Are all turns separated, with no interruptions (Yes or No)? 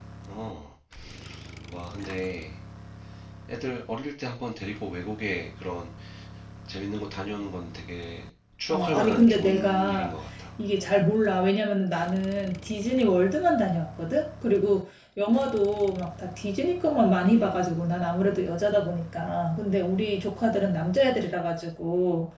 No